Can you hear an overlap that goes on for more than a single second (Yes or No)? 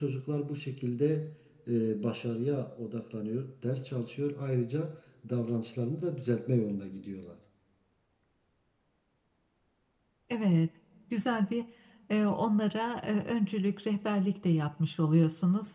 No